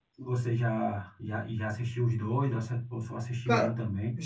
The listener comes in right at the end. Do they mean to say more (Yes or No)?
Yes